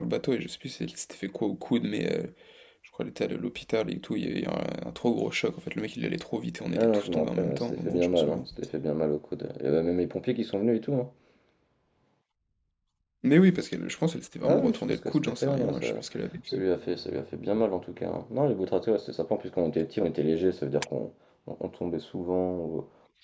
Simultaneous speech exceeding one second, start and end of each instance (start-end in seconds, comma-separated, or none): 6.7-8.4, 14.4-15.9